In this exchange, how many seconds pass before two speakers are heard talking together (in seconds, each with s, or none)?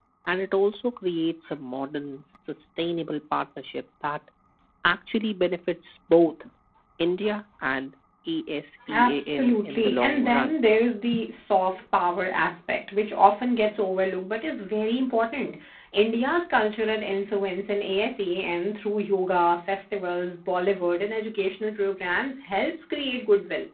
8.9 s